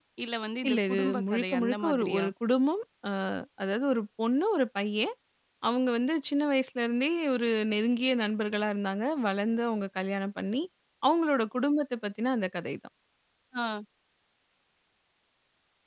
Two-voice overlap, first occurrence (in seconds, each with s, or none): 0.7 s